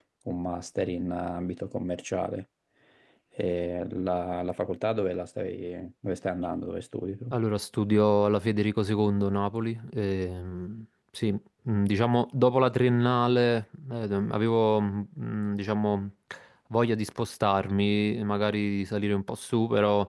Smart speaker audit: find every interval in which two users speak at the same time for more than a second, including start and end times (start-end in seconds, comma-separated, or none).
none